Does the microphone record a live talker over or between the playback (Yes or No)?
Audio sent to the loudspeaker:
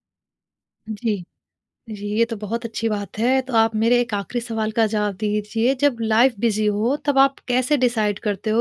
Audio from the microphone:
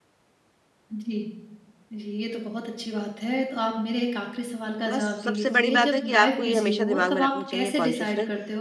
Yes